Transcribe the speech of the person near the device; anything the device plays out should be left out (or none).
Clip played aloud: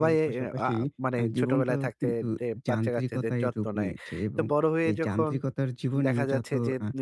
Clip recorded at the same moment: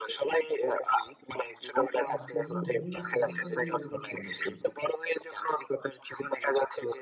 আ জীবন হয়ে গেছে যেন আমি রোবট হয়ে গেছি।